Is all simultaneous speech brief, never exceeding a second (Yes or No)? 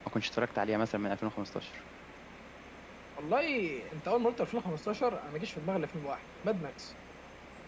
Yes